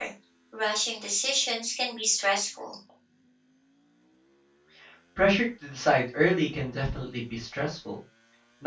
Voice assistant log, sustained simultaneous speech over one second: none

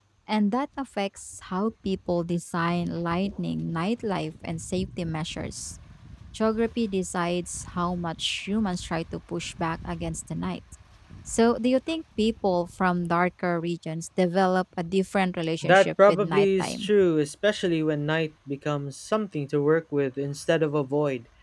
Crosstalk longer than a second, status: present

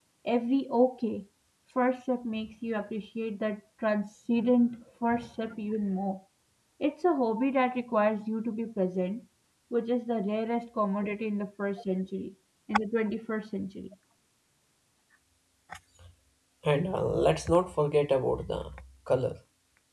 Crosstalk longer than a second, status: none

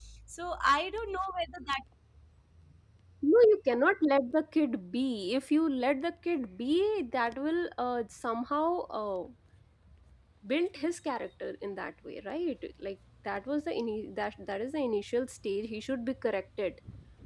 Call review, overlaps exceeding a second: none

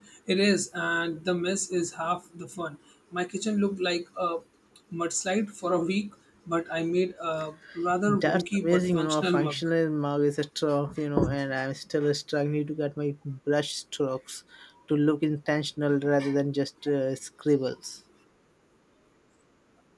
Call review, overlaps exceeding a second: present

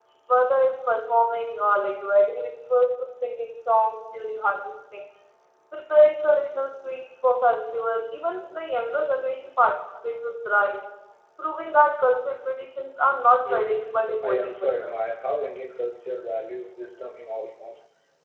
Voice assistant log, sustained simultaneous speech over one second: present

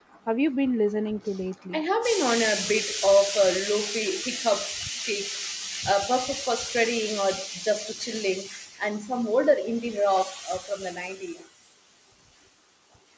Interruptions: none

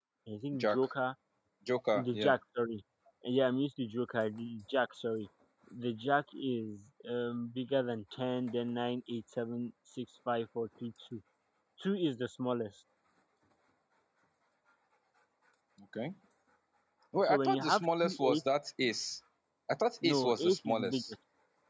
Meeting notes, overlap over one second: present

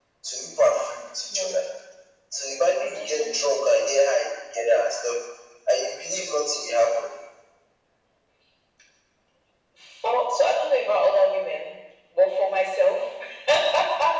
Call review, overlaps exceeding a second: none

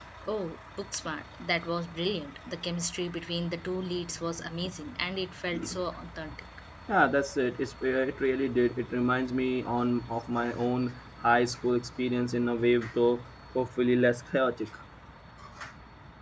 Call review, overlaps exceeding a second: none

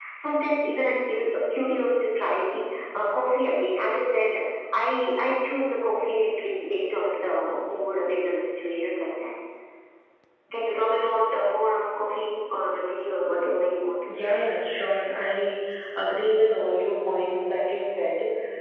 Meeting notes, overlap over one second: none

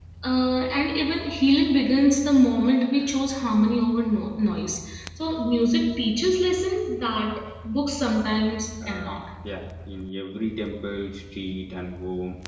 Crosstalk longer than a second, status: none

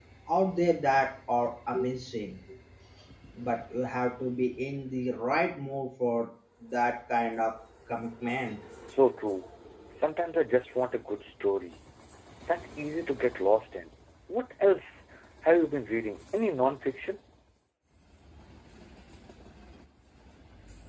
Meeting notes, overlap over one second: none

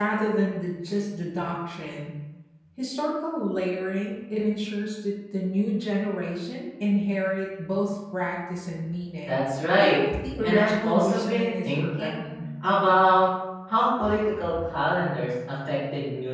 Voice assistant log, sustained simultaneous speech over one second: present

